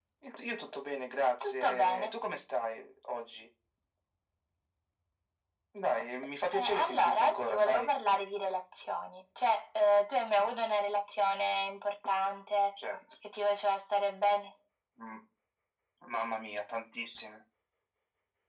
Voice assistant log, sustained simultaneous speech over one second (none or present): present